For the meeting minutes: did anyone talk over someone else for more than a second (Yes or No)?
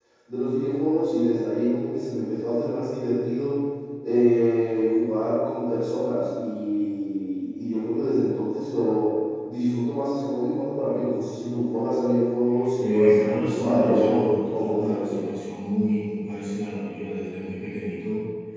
Yes